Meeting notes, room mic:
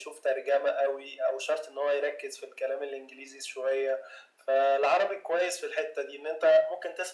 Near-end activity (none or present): none